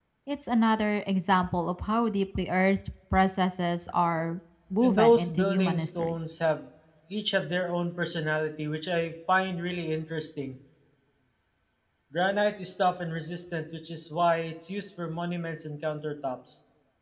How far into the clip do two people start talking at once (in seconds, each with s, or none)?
4.8 s